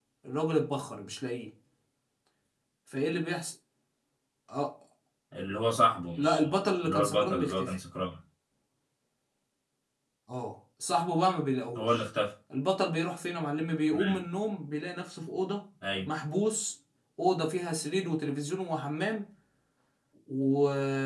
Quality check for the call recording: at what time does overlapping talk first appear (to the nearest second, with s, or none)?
6 s